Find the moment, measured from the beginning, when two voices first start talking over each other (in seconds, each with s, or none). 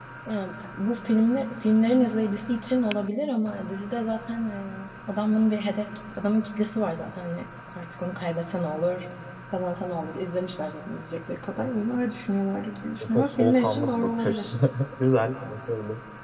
13.0 s